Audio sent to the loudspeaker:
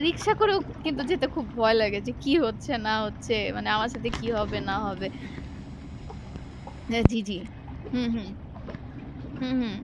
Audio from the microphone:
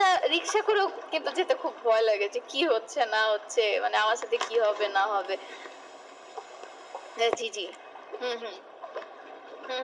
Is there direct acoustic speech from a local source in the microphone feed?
No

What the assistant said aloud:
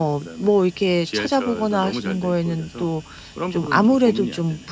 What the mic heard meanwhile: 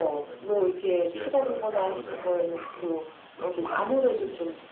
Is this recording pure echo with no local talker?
Yes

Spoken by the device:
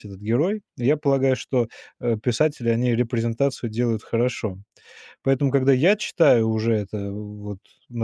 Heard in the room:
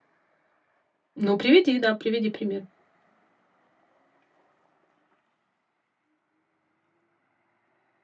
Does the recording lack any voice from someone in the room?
No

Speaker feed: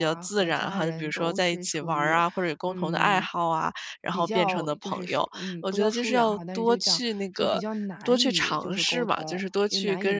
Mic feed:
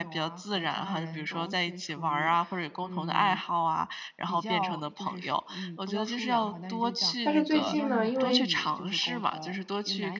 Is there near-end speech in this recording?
Yes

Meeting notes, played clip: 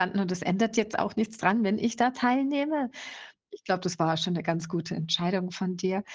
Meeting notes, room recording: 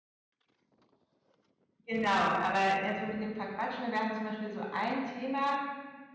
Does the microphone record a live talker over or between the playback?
Yes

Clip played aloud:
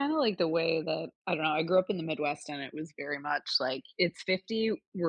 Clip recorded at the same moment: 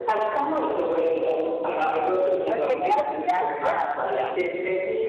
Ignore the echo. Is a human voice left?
Yes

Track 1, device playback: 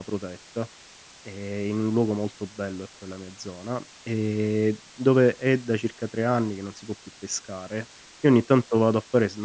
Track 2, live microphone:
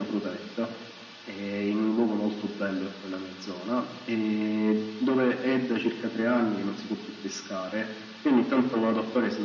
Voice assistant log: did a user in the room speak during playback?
No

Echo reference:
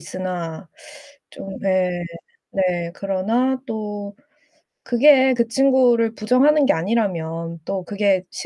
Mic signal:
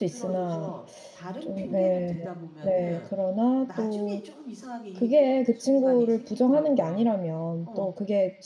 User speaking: Yes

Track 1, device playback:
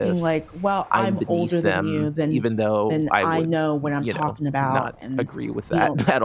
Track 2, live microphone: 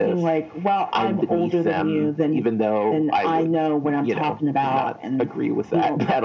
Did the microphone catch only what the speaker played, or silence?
Yes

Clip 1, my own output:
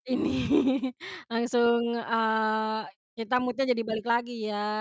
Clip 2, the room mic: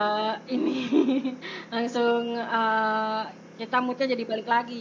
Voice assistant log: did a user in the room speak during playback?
No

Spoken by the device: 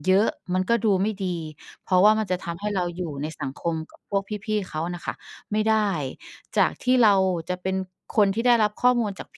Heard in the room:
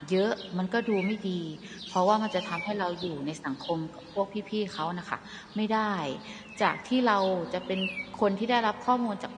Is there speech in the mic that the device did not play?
No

